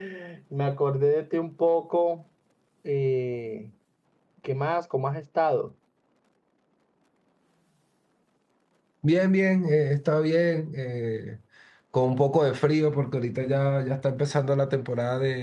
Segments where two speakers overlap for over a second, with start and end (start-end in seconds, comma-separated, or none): none